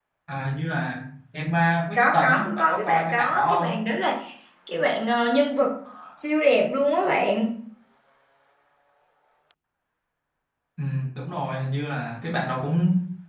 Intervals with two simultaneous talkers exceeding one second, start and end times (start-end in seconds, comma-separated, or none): 1.9-3.8